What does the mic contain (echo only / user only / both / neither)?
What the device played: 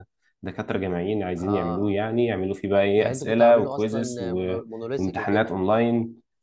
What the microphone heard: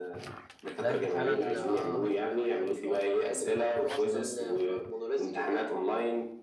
both